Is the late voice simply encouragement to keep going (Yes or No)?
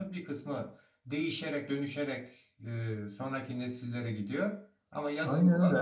No